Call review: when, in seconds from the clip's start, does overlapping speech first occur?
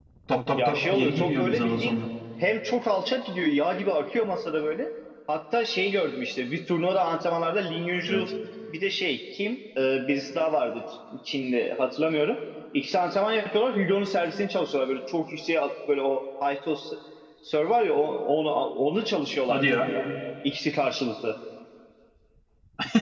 0.7 s

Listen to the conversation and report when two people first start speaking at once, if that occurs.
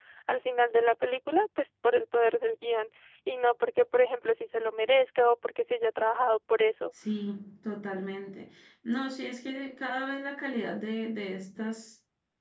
none

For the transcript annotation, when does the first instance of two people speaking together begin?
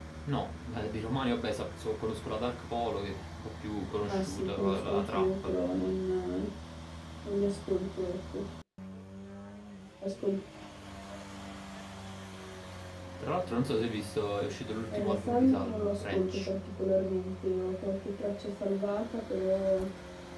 4.1 s

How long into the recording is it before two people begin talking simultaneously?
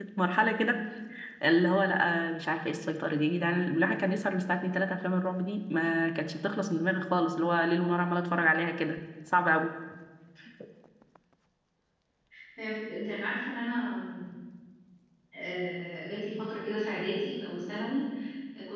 none

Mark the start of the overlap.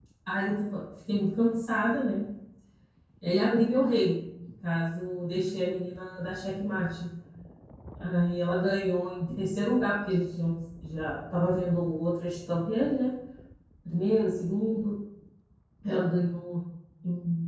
none

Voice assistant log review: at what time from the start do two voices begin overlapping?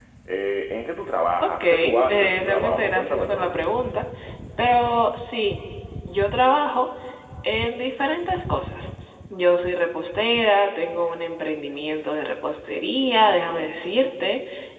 1.4 s

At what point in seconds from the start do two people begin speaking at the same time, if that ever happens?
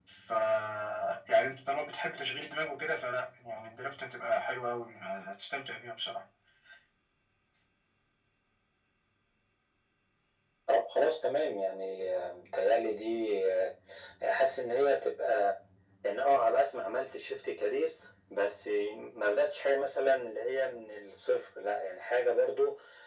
none

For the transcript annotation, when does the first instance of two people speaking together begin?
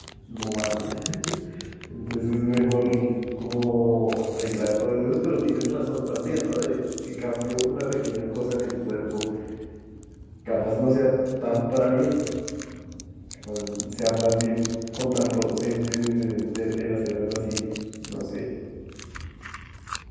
none

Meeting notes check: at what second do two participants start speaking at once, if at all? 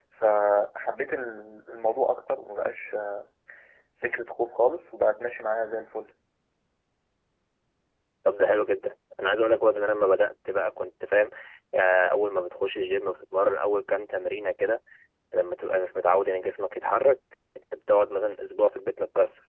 none

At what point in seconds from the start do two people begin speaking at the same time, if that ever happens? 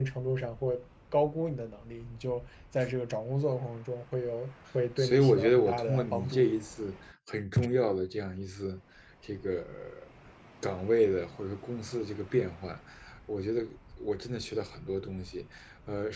5.0 s

